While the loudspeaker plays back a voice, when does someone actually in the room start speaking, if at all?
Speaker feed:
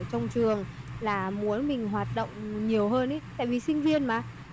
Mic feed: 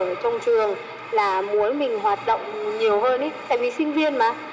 none

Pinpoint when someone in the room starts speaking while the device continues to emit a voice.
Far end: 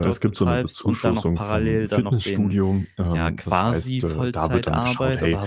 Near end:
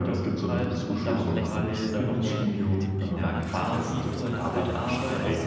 1.0 s

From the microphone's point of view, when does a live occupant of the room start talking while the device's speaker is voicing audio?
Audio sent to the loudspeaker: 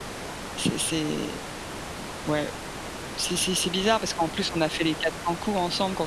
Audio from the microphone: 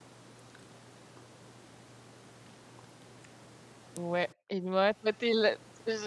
4.0 s

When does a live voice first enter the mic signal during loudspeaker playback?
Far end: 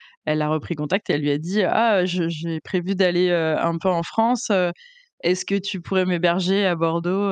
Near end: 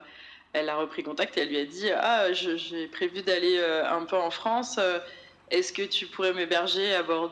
none

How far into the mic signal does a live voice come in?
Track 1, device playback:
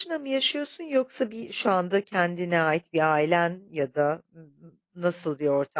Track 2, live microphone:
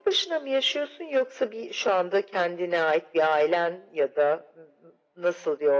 none

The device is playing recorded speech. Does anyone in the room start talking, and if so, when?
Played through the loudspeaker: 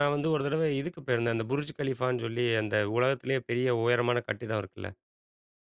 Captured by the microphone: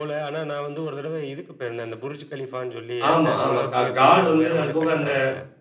3.1 s

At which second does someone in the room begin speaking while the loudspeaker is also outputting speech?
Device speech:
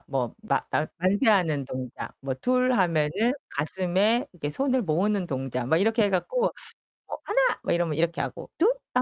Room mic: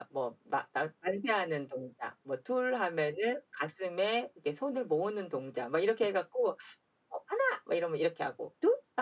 none

